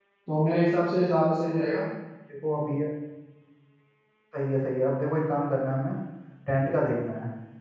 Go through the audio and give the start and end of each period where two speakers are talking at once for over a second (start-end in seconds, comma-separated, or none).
none